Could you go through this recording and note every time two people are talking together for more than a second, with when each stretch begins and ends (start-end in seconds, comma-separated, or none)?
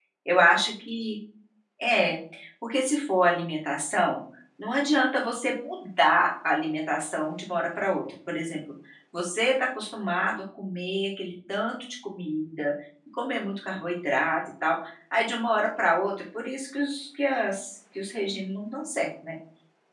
none